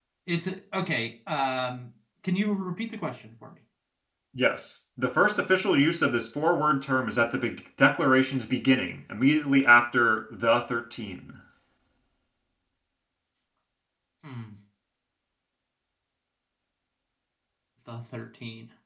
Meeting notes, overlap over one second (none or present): none